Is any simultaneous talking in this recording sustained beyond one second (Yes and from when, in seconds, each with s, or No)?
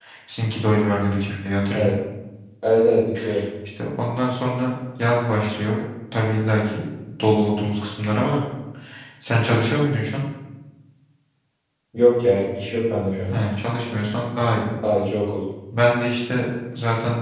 No